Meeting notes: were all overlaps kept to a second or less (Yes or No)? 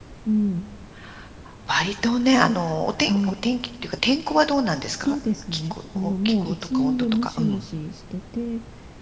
No